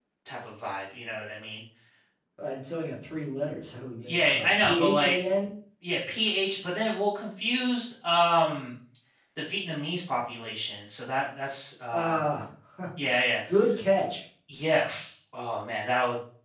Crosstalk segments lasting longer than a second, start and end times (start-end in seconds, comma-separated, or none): 4.1-5.3